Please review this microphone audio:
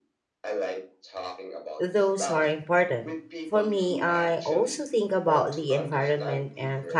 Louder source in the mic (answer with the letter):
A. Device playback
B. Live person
B